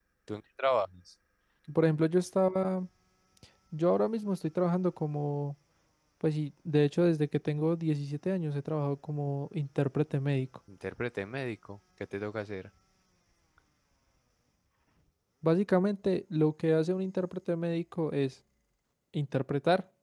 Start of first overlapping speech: none

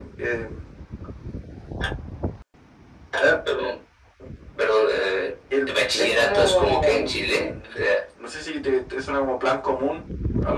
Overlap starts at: 5.5 s

